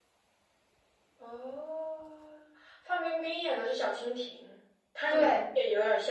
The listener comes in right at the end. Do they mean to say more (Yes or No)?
No